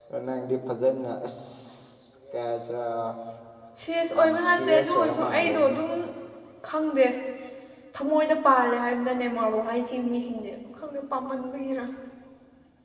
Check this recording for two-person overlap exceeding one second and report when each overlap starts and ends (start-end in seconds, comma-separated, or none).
4.1-5.8